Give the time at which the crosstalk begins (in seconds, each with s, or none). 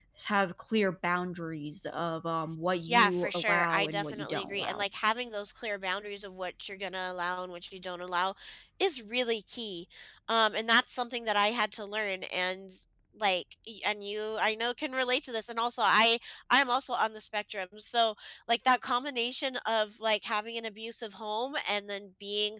2.9 s